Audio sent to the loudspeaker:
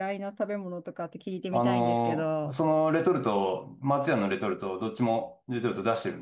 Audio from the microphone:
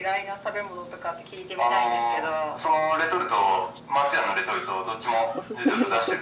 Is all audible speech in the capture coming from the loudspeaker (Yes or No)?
No